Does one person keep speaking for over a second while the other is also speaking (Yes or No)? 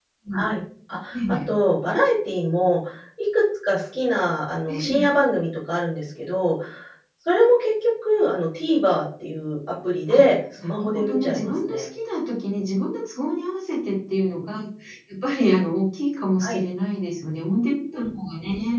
Yes